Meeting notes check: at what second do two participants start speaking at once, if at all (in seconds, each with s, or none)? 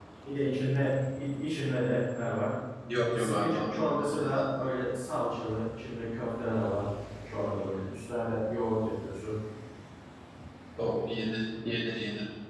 3.2 s